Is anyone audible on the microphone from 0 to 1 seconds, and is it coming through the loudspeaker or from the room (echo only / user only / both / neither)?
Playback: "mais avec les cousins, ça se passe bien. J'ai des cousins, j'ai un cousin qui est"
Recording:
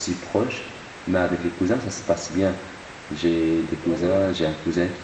echo only